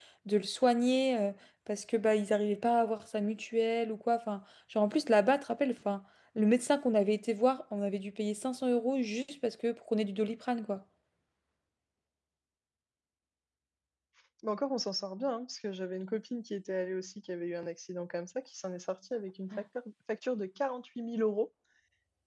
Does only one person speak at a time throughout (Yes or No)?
Yes